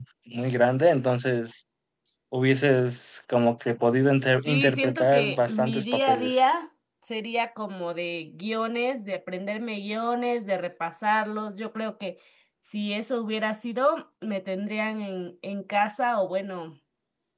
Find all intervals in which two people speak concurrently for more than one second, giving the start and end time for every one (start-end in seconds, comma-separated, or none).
4.5-6.4